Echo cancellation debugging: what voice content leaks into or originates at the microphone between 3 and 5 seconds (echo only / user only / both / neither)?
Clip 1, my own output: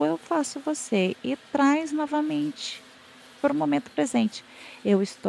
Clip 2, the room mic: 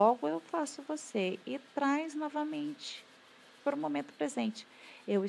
echo only